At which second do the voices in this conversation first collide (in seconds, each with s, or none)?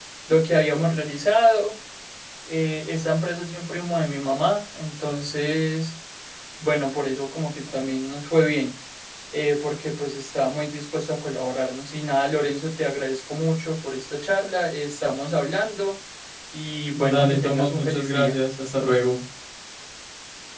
17.0 s